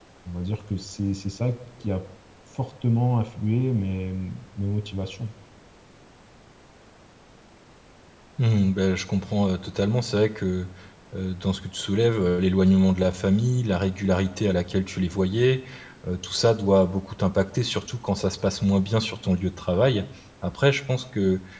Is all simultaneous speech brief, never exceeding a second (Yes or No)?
Yes